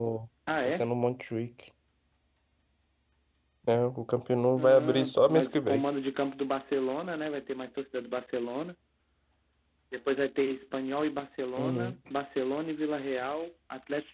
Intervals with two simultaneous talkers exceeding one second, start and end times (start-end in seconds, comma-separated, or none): 4.6-5.8